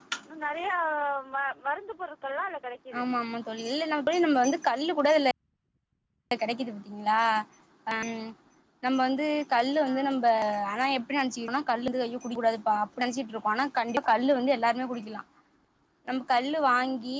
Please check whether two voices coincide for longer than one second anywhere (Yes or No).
No